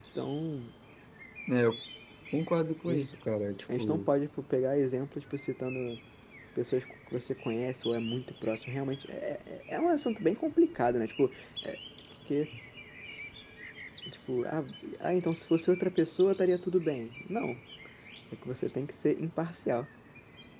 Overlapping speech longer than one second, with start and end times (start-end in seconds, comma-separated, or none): none